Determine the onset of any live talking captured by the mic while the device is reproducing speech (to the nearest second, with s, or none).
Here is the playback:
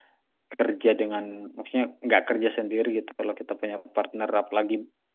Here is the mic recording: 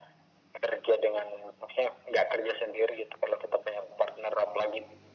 none